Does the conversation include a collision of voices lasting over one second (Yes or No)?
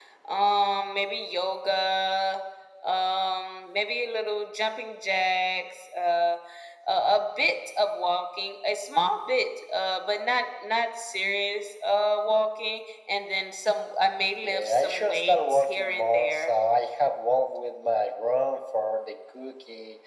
Yes